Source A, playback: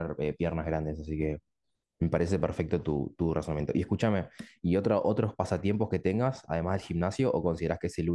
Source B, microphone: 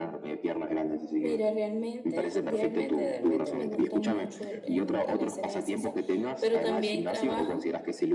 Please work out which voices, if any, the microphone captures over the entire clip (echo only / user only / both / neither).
both